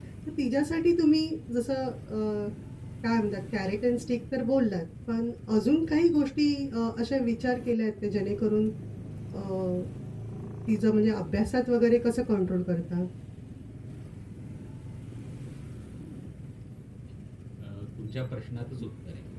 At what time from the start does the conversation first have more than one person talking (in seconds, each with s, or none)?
none